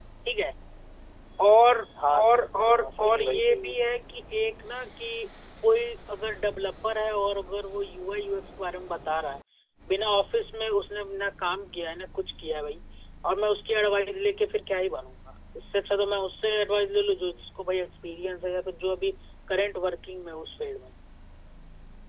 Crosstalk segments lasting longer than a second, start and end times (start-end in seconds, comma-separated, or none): 2.1-3.7